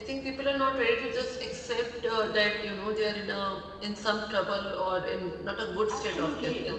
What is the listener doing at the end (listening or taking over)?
taking over